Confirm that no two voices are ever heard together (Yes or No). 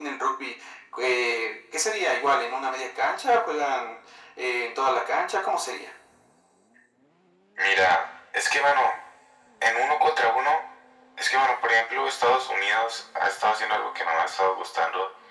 Yes